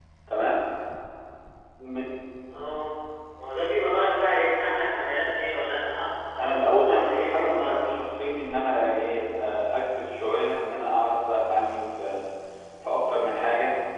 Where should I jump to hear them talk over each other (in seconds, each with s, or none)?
6.4 s